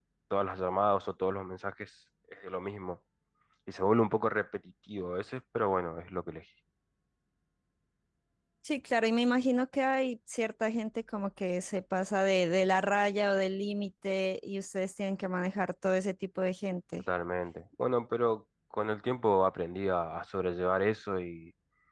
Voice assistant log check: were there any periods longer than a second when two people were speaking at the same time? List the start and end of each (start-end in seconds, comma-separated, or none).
none